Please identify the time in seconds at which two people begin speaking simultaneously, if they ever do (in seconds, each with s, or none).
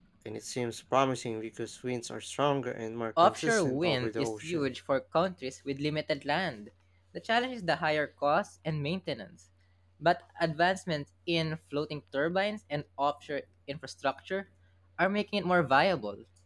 3.2 s